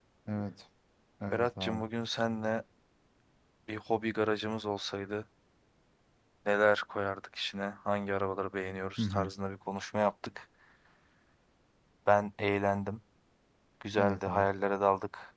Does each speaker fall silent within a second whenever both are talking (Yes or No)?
Yes